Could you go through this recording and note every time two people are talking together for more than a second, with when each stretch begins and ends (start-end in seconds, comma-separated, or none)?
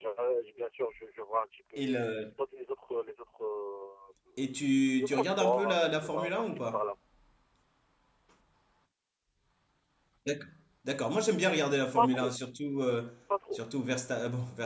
5.0-6.8